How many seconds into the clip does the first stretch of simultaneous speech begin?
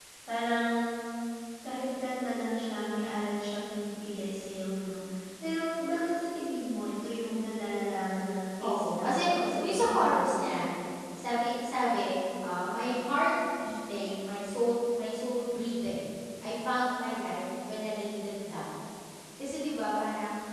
8.6 s

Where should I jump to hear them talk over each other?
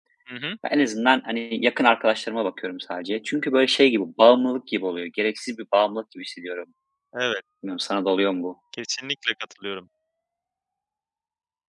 none

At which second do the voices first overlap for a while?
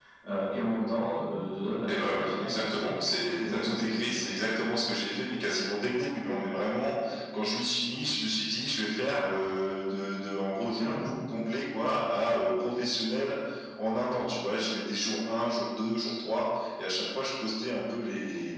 1.9 s

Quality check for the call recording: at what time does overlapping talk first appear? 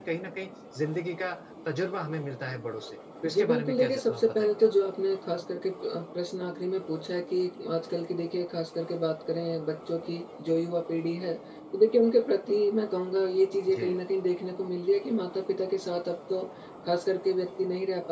3.2 s

